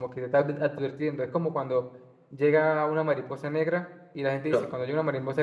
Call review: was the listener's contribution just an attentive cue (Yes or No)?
Yes